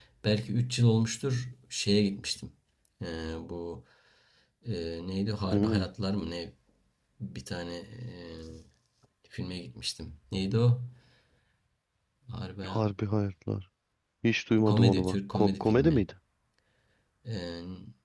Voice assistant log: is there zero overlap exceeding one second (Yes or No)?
No